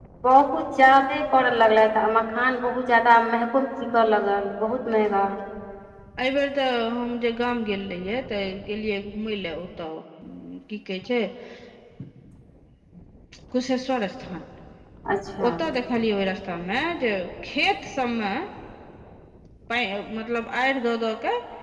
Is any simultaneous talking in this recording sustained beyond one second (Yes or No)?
No